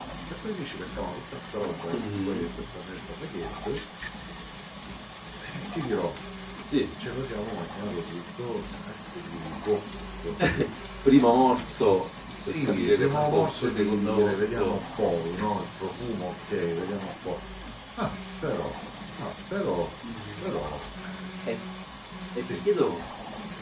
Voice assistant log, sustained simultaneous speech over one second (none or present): present